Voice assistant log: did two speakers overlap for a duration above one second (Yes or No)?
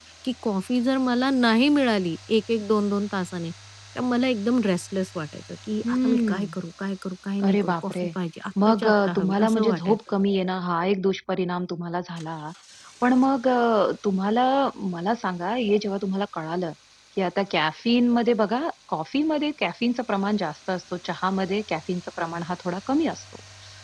Yes